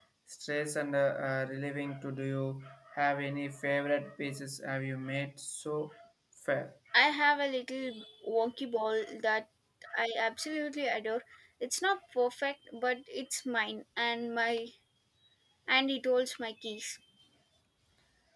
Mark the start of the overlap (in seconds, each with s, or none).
none